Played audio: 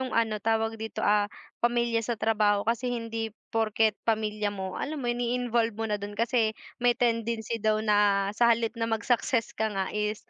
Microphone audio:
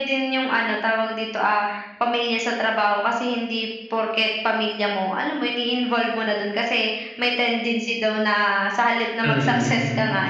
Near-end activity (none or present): present